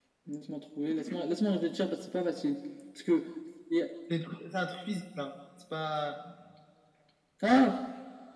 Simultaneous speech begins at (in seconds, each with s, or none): none